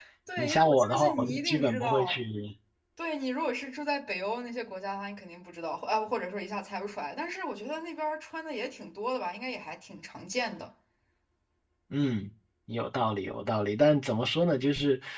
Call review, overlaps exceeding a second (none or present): present